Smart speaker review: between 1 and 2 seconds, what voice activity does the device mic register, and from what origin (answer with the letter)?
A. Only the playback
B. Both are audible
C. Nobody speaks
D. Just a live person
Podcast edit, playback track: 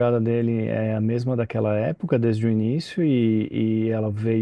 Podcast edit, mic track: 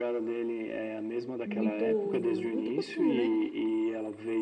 B